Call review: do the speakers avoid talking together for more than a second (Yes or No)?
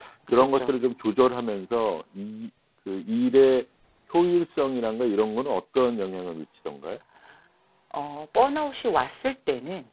Yes